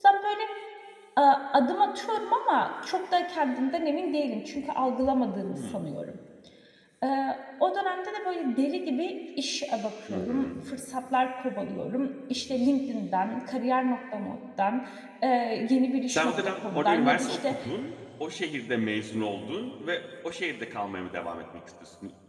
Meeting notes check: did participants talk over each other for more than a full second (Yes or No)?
Yes